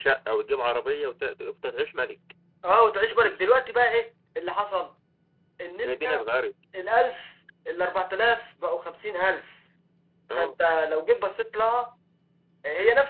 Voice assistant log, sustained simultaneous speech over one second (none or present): none